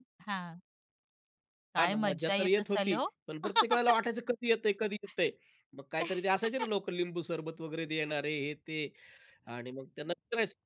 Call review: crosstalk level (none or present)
present